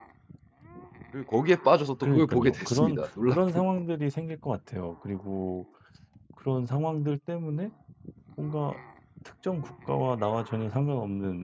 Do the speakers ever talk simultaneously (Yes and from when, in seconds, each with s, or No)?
Yes, from 2.0 s